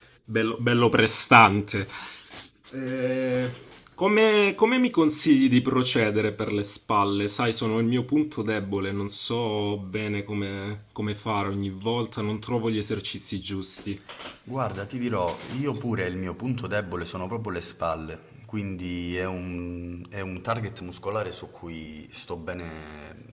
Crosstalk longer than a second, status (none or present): none